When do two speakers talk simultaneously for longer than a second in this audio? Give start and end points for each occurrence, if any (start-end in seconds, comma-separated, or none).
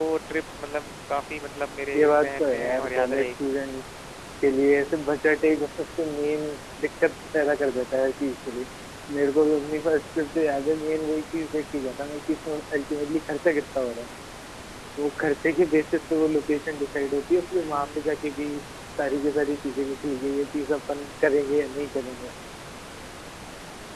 1.9-3.3